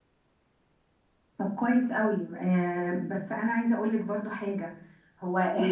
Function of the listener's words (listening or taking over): listening